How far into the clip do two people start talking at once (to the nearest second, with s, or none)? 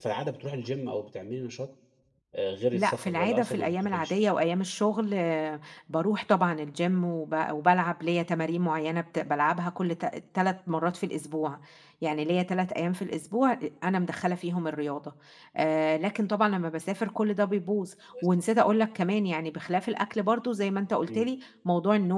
3 s